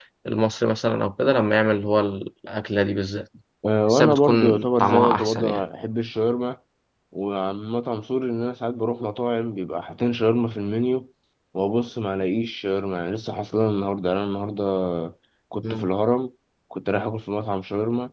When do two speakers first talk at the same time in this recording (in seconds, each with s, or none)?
3.9 s